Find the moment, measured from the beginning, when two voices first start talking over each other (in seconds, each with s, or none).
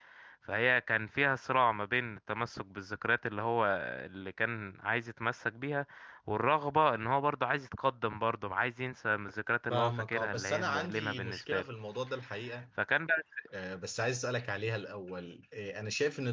9.7 s